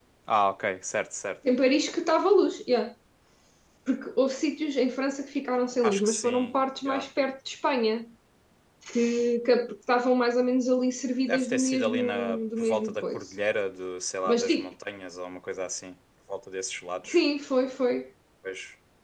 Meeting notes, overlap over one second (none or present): present